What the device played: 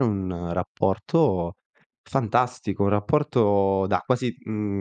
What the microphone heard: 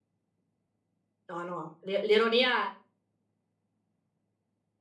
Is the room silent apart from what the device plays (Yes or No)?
No